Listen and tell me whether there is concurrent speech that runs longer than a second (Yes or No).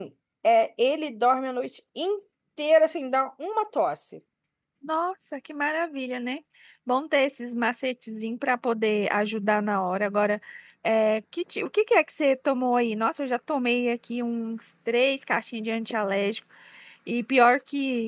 No